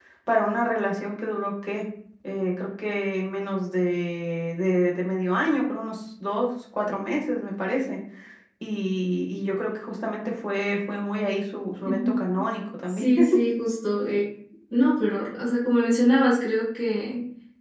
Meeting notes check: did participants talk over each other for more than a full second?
No

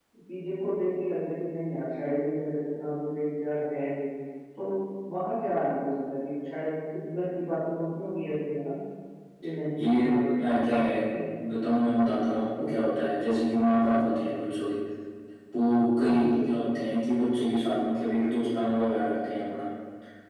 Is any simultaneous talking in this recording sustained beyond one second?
No

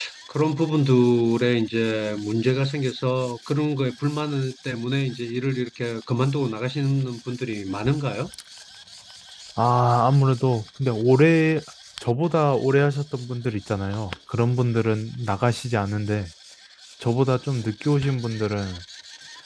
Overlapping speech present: No

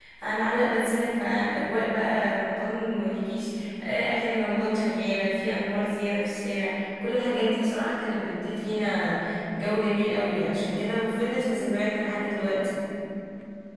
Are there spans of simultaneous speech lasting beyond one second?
No

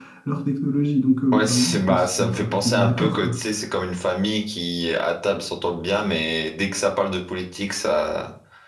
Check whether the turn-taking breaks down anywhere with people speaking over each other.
Yes, from 1.3 s

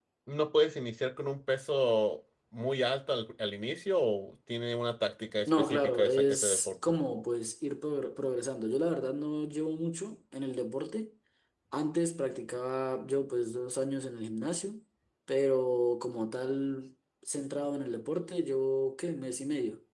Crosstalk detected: Yes, from 5.5 s

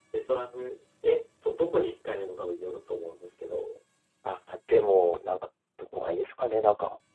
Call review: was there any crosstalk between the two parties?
No

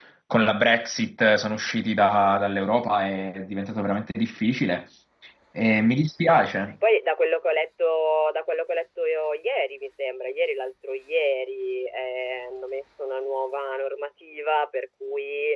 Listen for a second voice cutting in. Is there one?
No

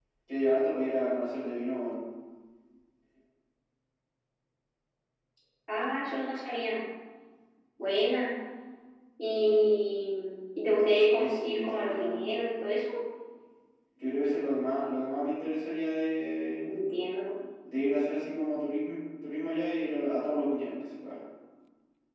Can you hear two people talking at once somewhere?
Yes, from 11.2 s

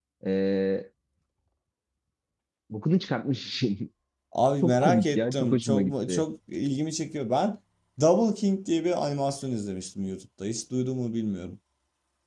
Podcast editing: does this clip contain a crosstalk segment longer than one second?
Yes, from 4.6 s

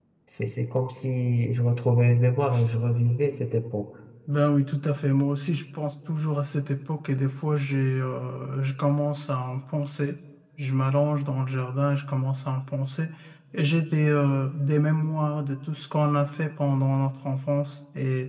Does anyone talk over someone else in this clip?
No

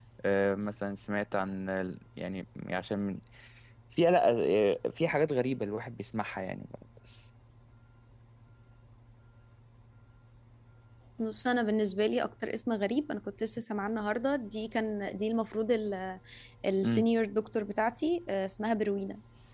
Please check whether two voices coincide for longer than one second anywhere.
No

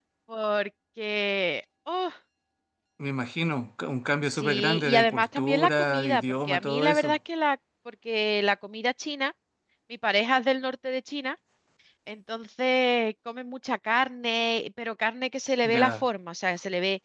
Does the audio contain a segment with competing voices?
Yes, from 4.3 s

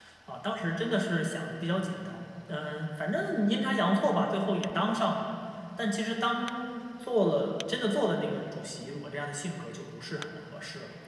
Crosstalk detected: No

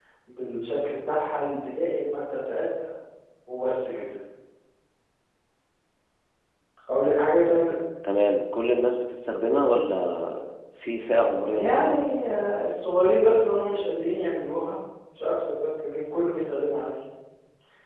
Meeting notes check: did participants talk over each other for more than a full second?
No

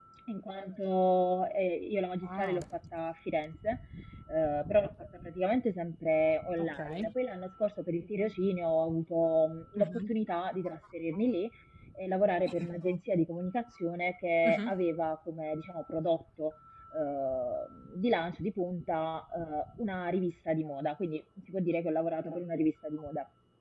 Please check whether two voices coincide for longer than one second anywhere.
No

